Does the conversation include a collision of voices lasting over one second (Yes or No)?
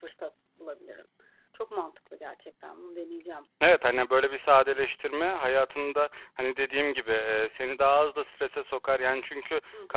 No